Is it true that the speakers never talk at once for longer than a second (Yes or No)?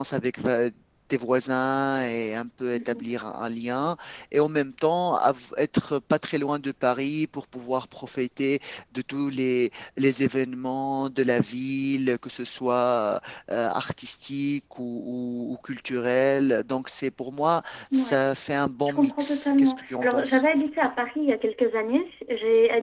No